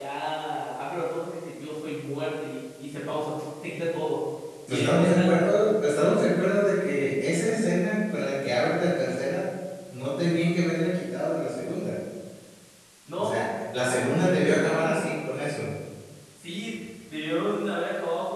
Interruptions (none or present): present